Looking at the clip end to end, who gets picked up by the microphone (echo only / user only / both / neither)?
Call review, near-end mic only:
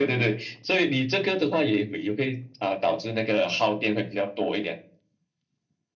echo only